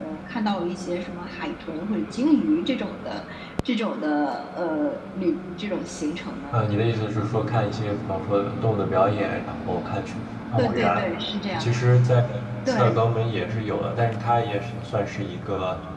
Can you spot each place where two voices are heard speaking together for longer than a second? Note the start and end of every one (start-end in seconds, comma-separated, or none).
none